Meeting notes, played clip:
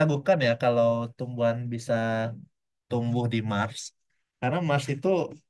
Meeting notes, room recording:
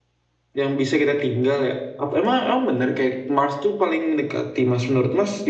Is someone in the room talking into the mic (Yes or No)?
Yes